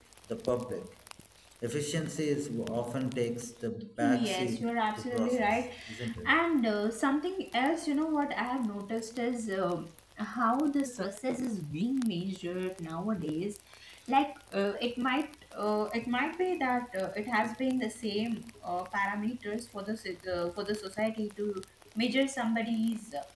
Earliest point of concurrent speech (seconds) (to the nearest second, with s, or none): 4 s